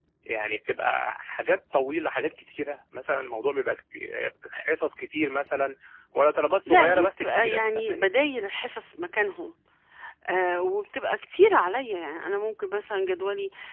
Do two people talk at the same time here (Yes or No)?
Yes